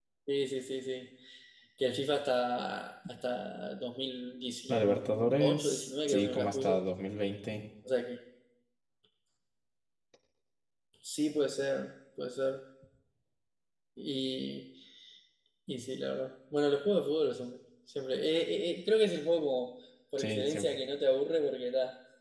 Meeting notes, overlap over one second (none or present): present